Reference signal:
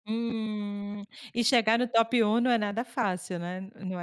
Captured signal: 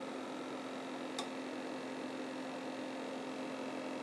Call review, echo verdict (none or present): none